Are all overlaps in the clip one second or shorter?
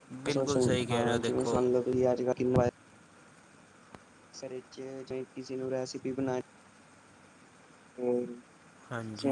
No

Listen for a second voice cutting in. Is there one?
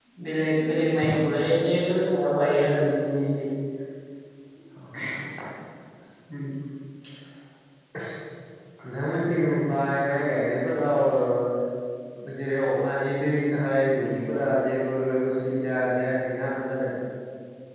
No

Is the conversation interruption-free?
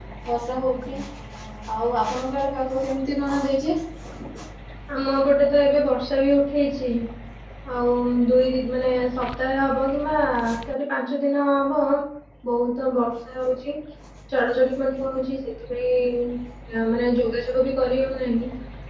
Yes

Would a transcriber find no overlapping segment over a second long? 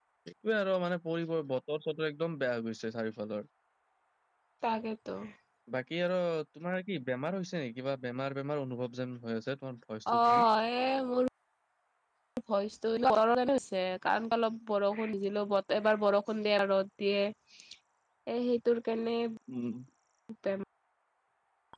Yes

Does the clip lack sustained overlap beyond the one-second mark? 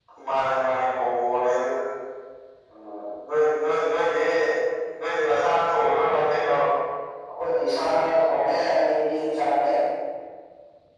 Yes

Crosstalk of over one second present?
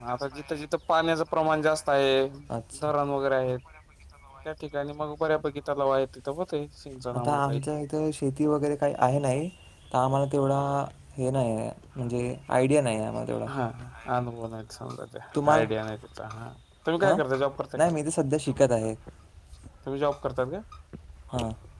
No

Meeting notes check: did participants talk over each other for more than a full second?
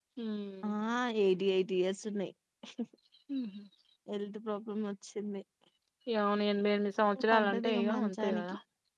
Yes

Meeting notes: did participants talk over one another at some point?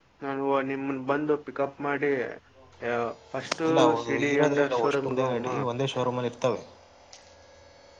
Yes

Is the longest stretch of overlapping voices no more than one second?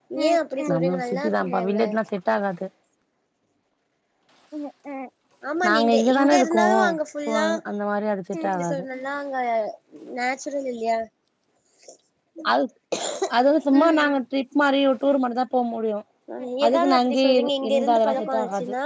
No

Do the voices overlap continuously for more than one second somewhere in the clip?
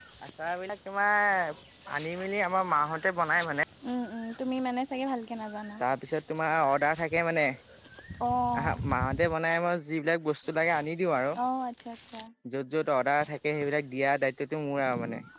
No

